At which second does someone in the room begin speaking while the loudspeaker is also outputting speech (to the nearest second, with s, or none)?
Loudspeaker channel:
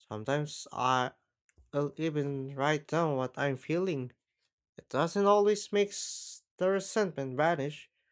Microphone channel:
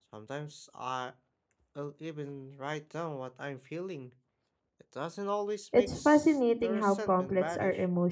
6 s